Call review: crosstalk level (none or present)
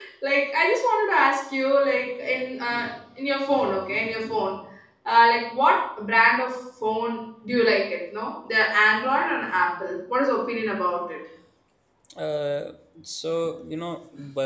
none